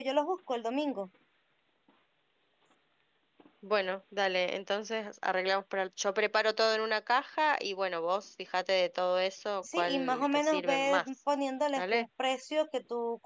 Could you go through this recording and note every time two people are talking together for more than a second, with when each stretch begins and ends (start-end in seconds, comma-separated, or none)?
9.7-11.0